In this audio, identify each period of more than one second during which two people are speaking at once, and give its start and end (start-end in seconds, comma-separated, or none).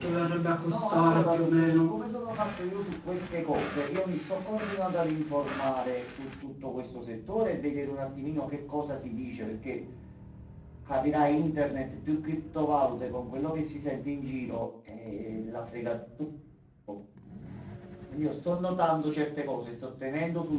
0.7-1.9